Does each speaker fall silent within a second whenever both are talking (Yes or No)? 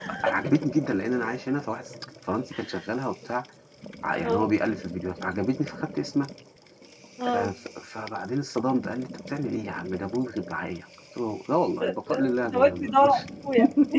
No